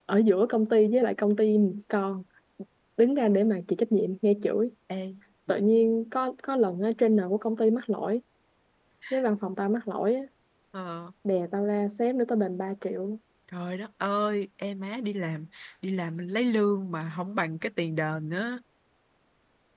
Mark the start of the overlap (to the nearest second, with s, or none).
none